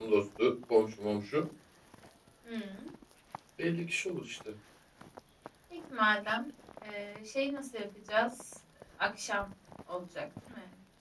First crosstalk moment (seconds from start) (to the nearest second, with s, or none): none